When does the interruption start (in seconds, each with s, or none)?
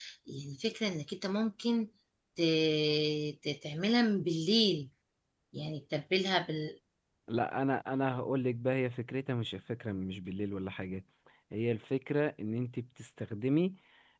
none